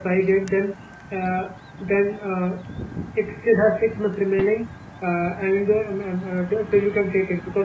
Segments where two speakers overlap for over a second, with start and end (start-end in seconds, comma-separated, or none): none